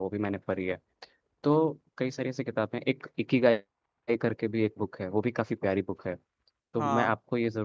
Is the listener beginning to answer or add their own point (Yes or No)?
No